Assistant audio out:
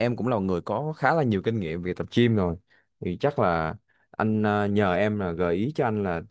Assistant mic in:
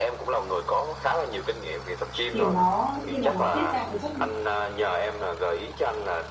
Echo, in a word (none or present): present